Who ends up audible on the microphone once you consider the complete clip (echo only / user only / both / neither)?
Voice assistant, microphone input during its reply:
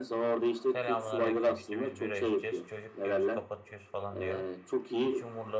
both